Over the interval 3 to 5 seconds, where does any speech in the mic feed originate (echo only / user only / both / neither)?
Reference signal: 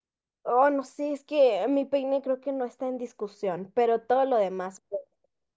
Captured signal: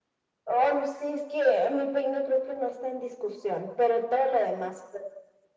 echo only